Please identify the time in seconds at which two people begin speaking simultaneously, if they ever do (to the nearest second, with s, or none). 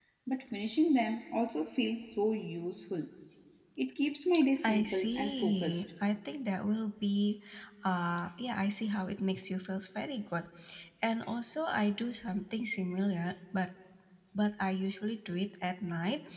5 s